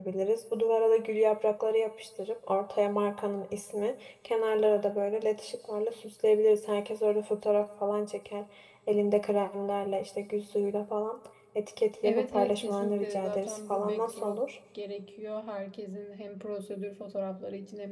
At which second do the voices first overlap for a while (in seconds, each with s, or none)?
12.0 s